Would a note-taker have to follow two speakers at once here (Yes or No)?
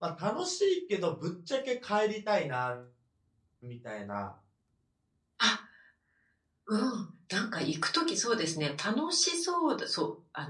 No